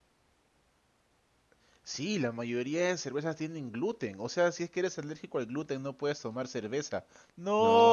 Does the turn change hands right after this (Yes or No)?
Yes